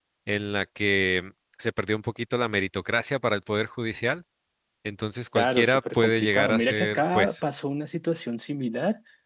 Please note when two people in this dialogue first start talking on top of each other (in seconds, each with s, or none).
5.3 s